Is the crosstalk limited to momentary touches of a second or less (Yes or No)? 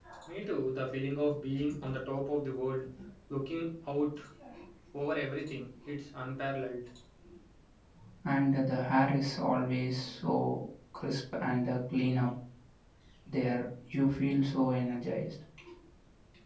Yes